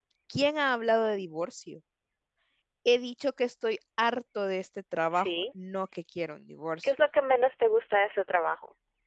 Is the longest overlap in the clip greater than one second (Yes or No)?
No